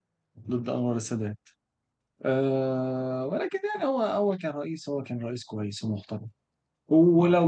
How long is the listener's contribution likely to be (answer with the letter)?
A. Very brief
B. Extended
A